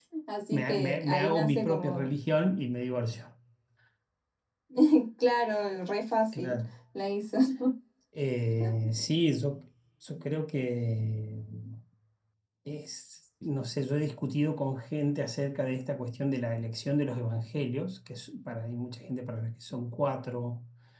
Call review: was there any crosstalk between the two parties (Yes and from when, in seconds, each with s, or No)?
Yes, from 0.5 s